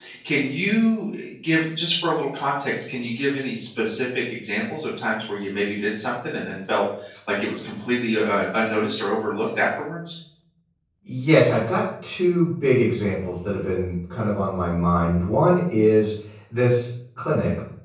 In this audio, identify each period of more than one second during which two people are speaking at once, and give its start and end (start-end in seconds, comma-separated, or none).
none